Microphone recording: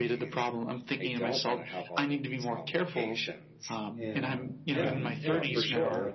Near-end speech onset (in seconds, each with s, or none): 3.9 s